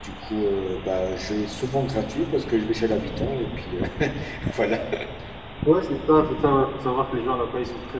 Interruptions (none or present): none